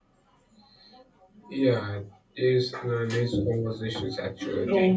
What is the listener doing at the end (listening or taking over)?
taking over